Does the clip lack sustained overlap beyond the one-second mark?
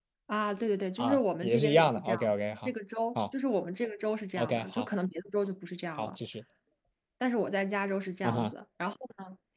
No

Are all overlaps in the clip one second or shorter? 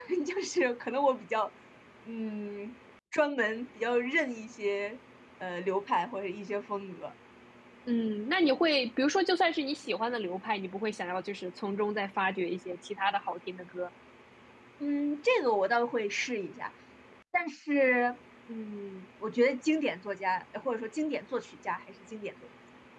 Yes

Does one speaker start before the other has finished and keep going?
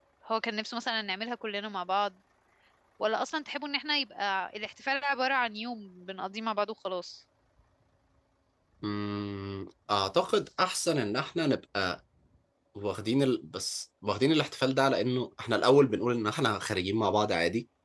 No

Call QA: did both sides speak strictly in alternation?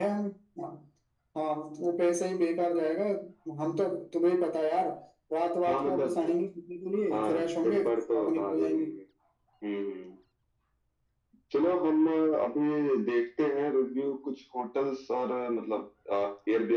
No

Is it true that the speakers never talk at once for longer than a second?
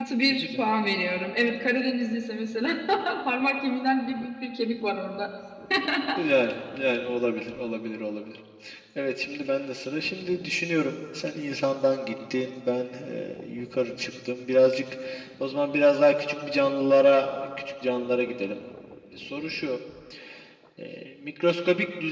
Yes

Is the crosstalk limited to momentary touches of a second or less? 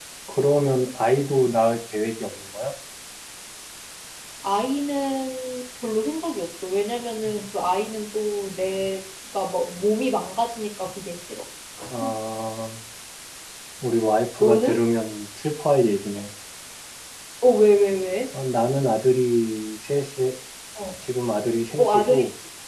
Yes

